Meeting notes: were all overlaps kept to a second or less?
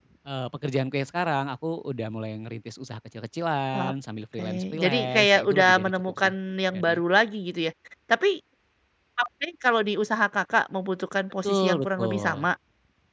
No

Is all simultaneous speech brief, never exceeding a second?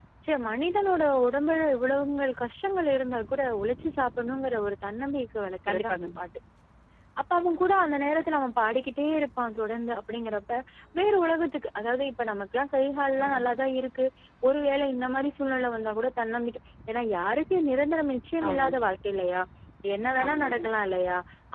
Yes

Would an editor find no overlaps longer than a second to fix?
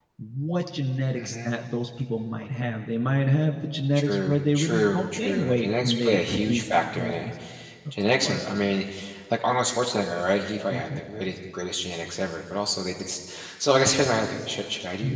No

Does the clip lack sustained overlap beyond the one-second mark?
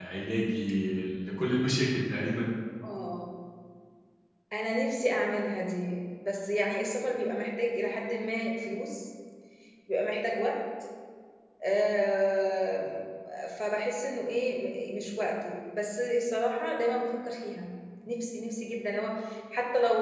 Yes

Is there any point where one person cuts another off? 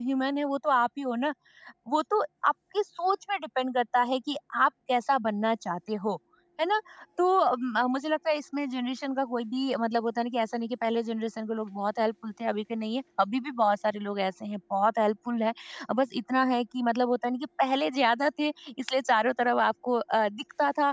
No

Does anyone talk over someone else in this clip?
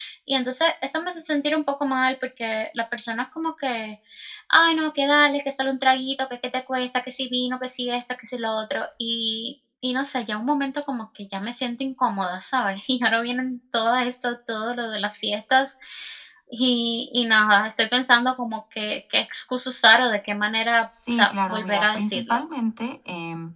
Yes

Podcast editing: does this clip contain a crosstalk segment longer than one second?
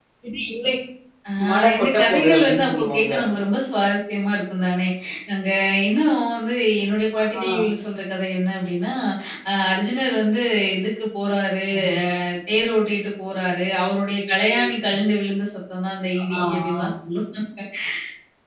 Yes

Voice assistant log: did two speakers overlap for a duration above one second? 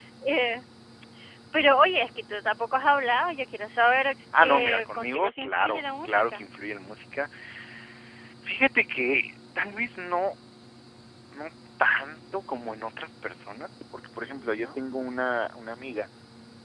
Yes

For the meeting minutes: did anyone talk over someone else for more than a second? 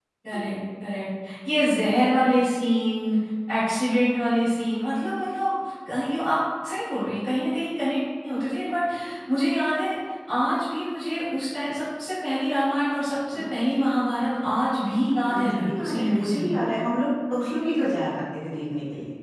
Yes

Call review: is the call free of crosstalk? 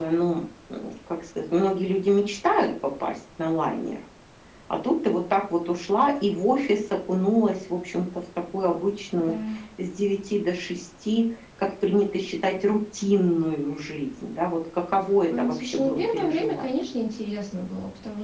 No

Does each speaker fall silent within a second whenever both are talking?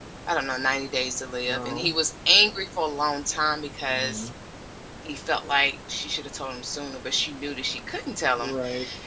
Yes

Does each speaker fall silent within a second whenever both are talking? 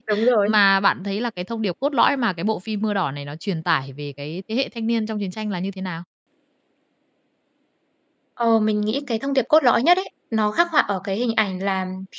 Yes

